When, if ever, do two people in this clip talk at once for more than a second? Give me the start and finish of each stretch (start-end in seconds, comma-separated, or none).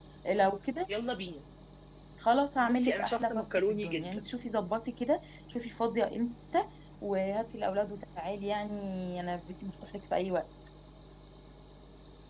2.6-4.3